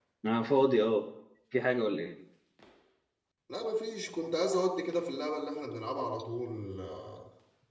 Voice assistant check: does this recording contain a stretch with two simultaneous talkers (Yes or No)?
No